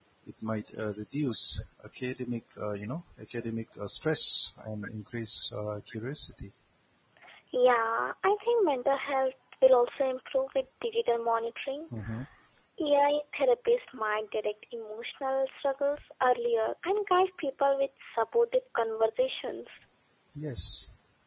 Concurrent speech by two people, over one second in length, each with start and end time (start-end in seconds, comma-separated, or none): none